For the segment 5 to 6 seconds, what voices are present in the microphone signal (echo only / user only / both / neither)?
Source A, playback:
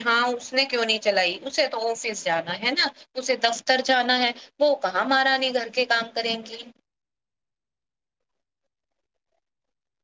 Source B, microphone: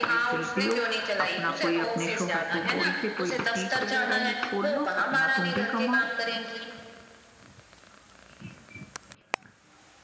both